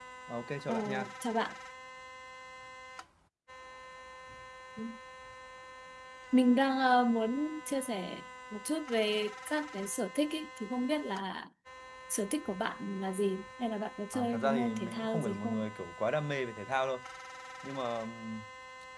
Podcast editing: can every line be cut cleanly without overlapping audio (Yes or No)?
No